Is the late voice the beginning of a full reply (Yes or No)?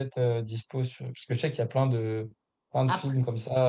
No